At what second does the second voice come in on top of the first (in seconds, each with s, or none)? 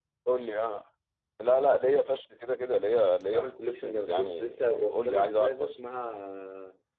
3.3 s